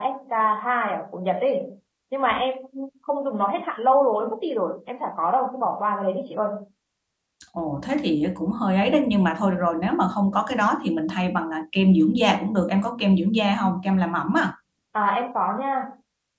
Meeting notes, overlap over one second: none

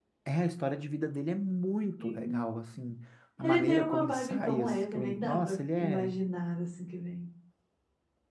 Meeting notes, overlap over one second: present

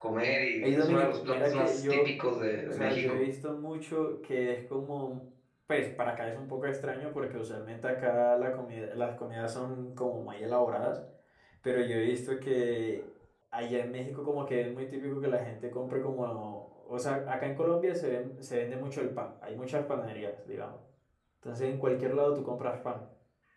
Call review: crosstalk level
present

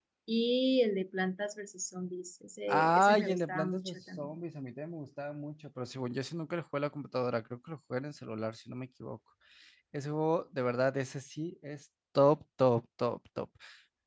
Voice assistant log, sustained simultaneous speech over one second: present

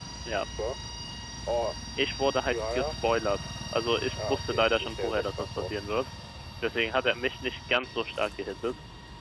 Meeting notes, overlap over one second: present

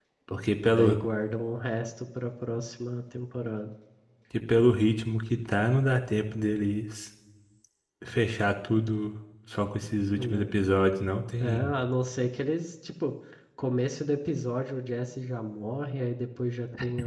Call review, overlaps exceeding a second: none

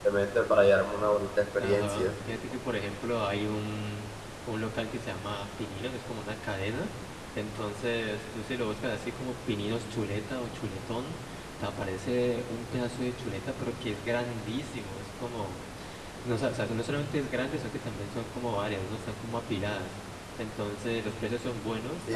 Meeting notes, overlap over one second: none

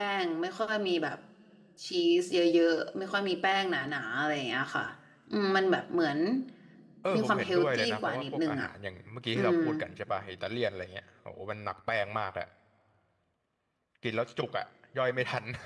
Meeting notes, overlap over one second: present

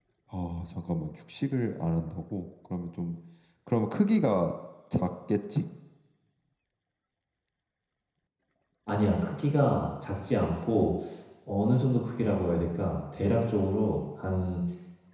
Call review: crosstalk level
none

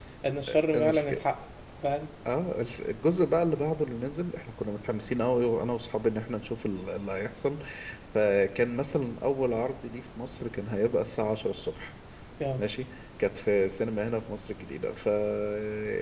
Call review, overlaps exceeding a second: none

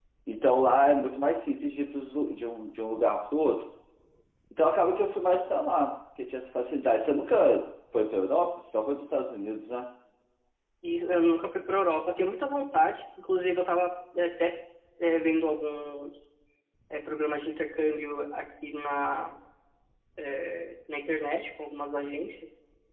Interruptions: none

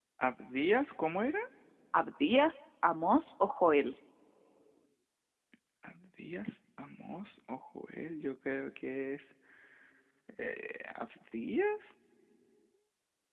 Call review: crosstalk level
none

